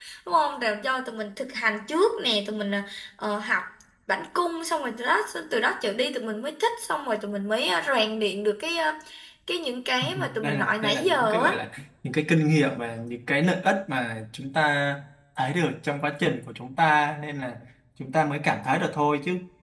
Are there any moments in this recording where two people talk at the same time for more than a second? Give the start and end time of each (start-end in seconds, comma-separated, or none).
10.0-11.5